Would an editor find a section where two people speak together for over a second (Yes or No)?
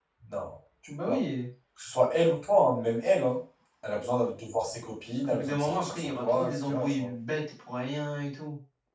Yes